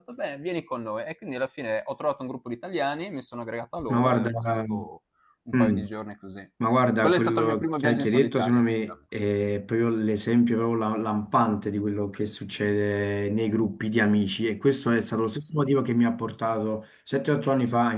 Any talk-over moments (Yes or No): Yes